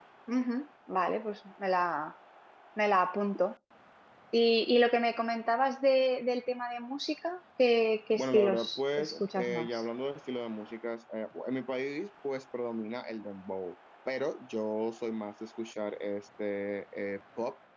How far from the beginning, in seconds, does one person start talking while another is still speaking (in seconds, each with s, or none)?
8.2 s